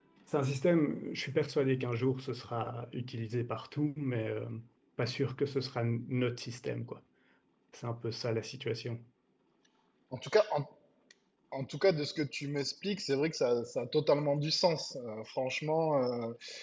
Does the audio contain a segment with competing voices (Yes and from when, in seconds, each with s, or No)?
No